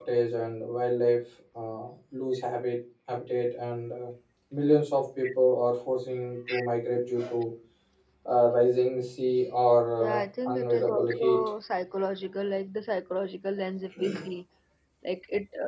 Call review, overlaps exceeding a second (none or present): present